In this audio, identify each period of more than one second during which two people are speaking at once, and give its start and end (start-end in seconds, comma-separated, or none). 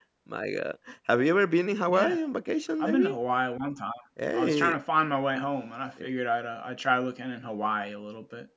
none